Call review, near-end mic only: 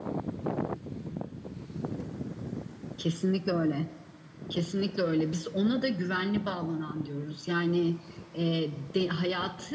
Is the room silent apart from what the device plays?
Yes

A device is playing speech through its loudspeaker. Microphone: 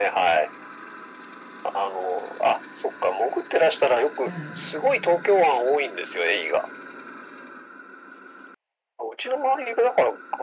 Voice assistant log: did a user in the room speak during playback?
Yes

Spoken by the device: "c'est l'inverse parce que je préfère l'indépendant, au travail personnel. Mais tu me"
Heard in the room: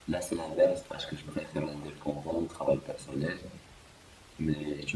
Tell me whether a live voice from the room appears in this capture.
No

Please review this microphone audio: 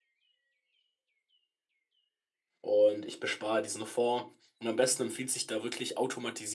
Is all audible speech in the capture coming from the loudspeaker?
No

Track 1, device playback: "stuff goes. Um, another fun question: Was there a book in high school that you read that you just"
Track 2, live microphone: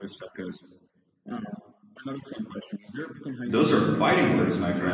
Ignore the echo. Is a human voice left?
Yes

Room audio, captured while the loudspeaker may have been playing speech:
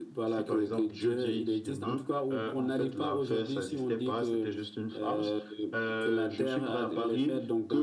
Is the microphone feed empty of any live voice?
Yes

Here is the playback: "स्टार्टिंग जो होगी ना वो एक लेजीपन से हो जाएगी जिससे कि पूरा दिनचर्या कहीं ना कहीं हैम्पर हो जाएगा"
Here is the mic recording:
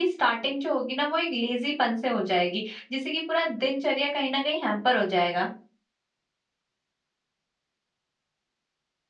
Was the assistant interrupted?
No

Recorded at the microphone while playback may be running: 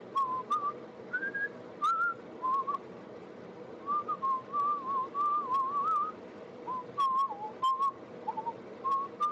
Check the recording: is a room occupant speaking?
No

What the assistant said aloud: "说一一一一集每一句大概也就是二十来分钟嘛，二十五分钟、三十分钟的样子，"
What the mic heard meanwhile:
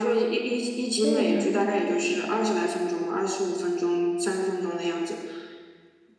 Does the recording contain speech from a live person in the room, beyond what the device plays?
Yes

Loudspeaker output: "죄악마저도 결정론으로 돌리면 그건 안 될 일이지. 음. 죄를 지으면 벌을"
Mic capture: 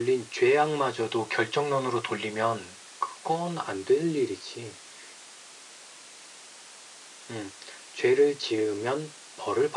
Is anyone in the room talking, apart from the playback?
No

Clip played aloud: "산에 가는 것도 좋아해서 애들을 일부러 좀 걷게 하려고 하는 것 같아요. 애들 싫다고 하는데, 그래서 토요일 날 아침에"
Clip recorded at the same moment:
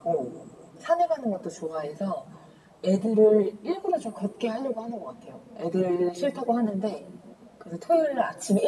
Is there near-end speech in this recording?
No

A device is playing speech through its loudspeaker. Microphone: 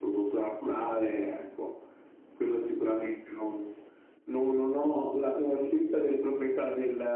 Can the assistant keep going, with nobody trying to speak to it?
Yes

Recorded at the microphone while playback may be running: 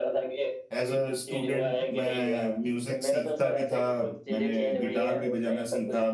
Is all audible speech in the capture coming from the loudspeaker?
No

